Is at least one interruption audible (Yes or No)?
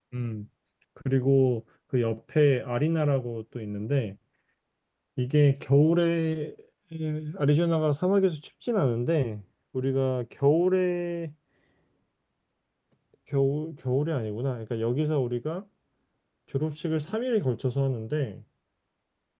No